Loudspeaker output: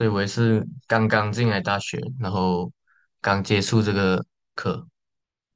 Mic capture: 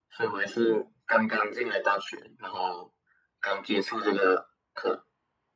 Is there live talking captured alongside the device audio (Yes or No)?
No